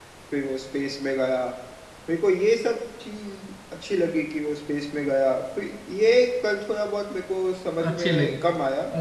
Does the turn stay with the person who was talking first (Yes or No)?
No